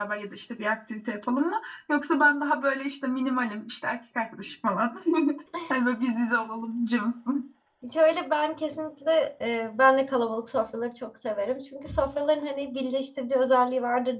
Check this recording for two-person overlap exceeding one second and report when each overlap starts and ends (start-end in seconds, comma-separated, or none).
none